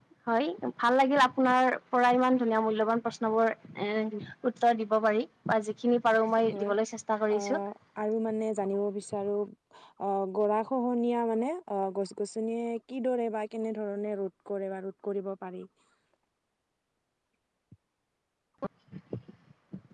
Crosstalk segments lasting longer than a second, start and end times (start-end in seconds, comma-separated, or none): none